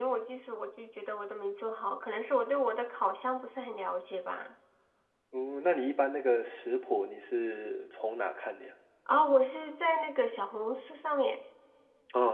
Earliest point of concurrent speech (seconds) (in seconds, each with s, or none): none